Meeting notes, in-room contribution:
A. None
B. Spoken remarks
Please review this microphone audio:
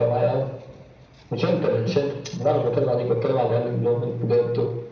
A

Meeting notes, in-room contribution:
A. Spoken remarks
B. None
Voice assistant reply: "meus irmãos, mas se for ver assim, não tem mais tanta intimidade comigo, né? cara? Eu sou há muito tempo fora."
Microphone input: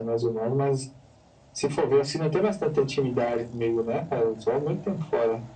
B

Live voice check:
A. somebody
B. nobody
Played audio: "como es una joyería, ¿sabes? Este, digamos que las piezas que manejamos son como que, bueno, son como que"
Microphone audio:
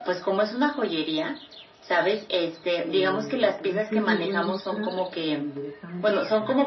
A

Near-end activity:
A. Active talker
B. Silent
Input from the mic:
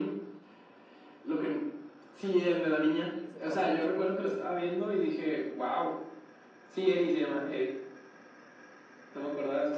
A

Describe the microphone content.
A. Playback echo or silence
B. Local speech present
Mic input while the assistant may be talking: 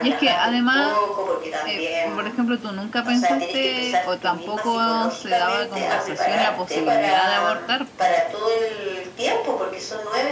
B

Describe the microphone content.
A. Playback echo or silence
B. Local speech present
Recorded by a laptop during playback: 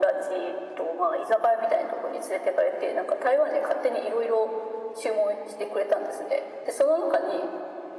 A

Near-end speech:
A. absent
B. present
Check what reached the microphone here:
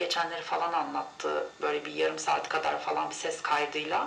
A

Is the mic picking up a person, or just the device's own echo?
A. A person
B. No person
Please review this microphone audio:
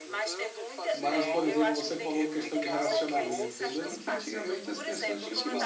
A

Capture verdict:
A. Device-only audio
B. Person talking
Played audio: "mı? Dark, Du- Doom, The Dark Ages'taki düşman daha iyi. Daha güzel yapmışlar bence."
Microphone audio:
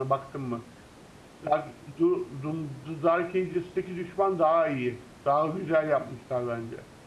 A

